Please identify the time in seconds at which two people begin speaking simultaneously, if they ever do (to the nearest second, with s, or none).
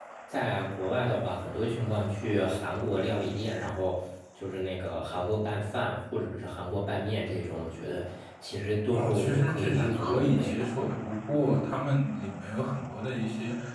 9 s